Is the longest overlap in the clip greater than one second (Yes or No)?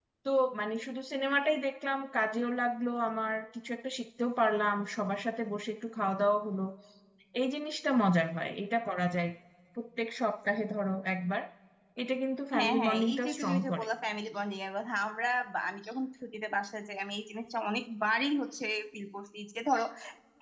Yes